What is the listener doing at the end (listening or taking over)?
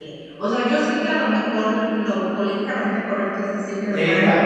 taking over